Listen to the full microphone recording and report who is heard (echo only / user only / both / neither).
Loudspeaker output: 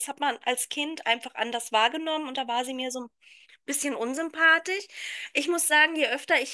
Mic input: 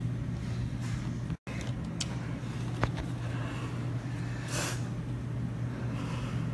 neither